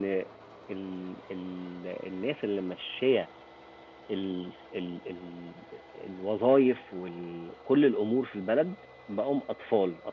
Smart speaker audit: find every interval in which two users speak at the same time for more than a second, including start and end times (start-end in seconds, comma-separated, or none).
none